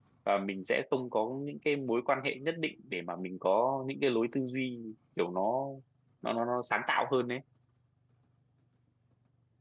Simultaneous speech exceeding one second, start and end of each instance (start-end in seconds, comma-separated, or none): none